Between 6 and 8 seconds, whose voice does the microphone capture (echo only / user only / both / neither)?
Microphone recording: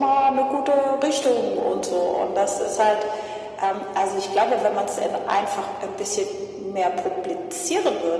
echo only